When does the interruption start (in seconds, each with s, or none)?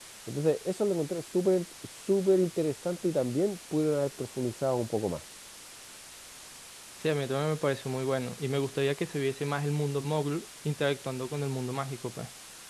none